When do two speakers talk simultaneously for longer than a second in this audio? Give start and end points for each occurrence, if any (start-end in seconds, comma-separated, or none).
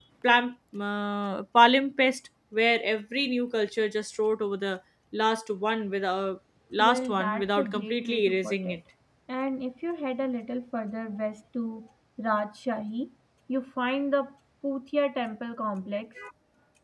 6.8-8.8